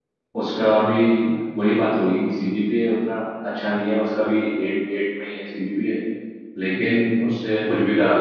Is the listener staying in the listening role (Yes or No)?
Yes